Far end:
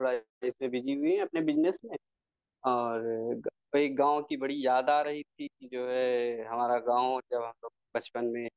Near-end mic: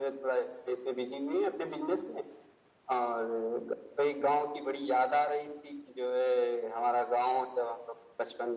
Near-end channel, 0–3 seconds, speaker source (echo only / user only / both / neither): echo only